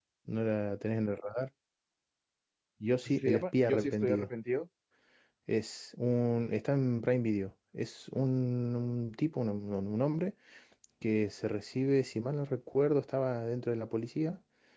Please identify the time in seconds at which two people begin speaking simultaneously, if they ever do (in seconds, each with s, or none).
3.0 s